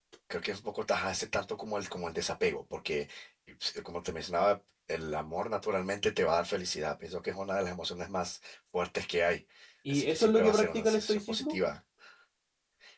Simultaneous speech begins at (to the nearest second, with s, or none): 10 s